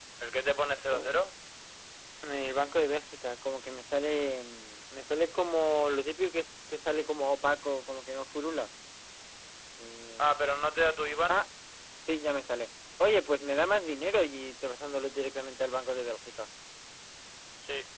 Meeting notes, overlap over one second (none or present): none